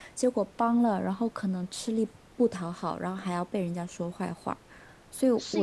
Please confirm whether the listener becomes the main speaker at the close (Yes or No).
Yes